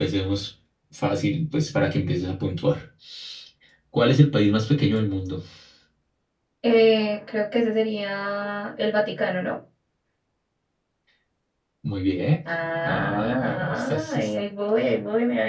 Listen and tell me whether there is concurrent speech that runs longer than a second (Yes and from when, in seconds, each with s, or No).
Yes, from 12.8 s